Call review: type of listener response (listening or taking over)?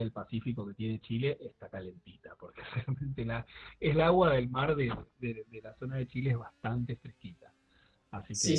taking over